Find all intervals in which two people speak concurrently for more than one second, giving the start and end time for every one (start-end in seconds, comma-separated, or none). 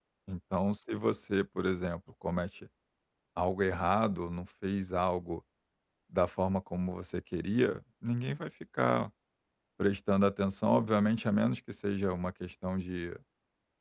none